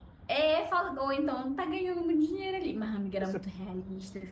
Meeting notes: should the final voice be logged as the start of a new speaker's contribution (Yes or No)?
No